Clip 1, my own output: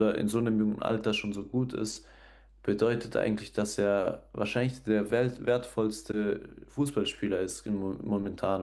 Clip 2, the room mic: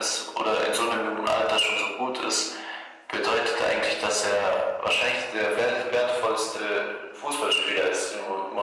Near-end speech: none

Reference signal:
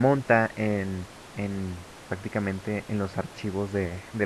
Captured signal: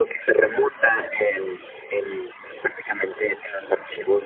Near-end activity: none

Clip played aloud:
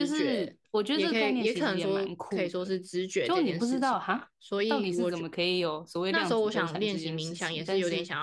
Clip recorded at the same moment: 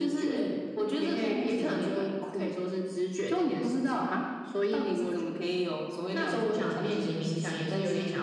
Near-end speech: none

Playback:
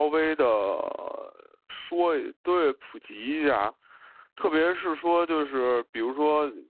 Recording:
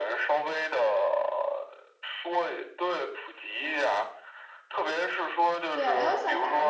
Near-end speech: present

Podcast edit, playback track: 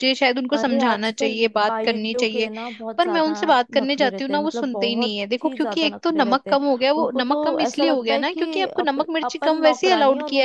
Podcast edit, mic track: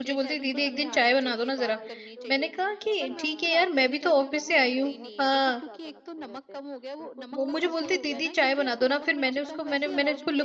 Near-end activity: present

